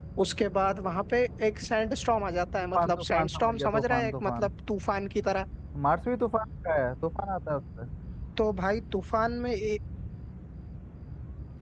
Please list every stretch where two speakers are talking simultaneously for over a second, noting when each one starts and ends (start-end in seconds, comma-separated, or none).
2.7-4.5